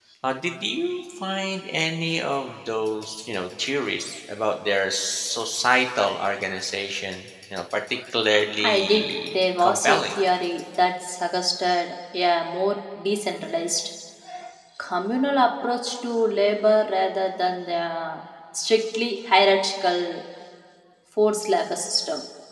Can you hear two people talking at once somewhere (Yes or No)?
Yes